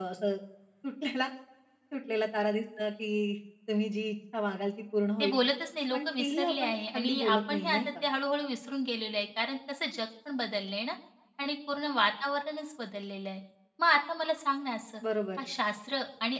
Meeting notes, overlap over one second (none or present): present